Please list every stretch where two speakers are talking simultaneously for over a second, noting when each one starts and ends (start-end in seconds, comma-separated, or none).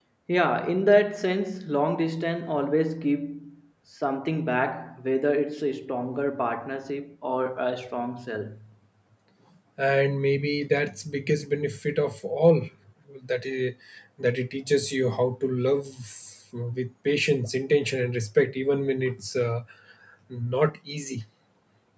none